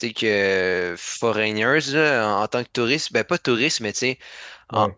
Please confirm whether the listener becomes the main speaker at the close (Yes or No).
No